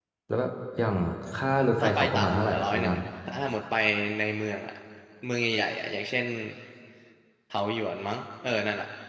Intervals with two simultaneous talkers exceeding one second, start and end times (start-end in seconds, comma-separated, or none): 1.8-3.0